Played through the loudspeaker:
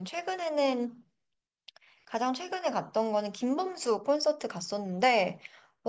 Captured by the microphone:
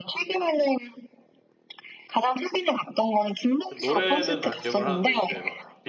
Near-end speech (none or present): present